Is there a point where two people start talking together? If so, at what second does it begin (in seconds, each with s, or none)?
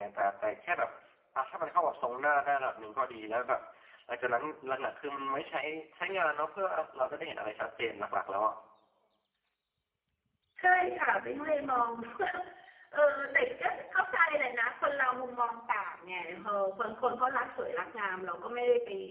none